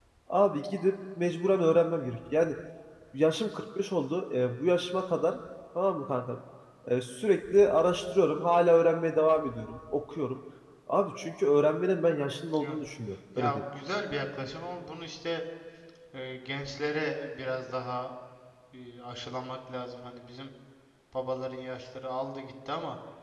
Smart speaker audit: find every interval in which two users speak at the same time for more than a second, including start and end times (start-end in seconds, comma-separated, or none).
none